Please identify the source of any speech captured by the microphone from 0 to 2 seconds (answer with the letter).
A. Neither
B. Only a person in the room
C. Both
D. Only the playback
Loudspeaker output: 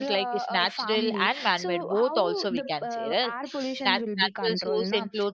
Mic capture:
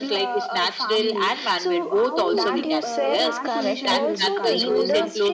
D